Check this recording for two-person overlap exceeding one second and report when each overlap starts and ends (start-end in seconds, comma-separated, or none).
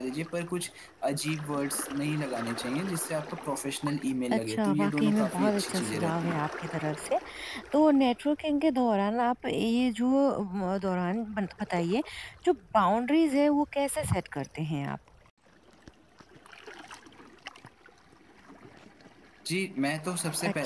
4.3-6.4